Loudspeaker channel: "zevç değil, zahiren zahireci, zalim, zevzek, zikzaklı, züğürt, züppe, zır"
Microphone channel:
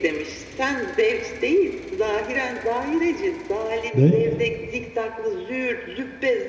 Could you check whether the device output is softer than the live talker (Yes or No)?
Yes